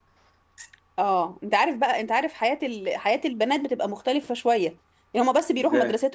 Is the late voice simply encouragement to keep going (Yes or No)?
Yes